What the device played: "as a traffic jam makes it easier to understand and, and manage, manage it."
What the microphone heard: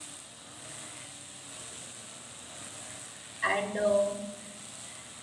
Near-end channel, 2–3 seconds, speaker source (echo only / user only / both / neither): neither